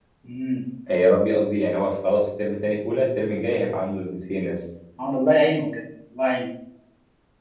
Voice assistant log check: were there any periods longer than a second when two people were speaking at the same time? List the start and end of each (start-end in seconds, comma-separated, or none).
none